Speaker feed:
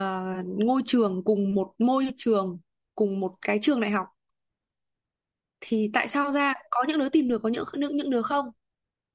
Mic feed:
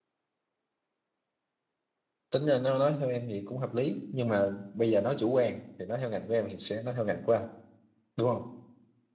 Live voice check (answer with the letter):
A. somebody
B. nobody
A